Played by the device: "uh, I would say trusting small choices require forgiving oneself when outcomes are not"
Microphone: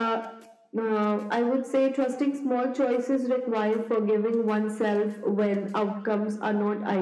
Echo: present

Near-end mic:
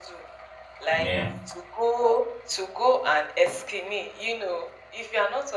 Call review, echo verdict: present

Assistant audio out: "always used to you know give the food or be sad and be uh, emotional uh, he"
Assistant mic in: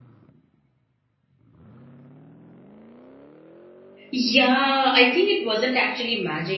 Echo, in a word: none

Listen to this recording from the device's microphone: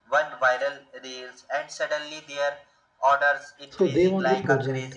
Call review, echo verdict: present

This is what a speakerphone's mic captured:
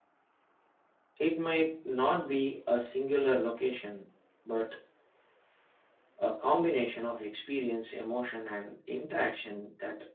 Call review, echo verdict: none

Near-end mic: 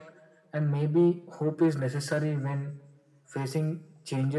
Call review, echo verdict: present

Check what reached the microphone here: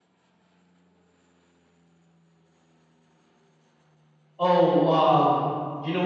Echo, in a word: none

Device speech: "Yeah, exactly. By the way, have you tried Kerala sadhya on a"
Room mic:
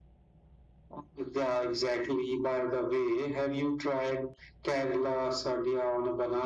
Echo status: present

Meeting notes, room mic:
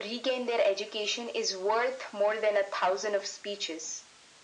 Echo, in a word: present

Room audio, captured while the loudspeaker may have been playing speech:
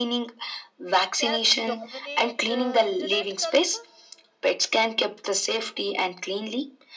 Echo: present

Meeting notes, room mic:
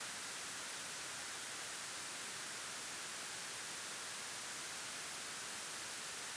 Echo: none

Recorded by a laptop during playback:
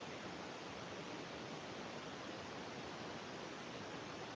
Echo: none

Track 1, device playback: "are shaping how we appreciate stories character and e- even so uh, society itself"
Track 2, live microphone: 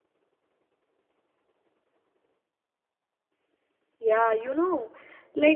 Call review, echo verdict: none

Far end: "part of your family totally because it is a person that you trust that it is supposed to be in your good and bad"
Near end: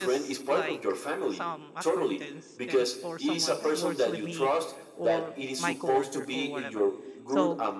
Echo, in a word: present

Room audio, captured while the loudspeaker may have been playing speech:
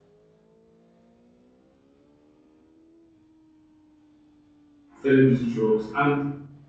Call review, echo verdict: none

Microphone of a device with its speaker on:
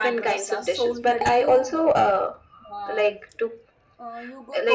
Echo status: present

